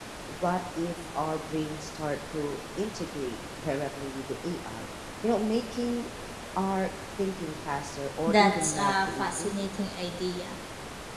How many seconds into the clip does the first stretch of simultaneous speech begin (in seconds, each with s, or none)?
8.3 s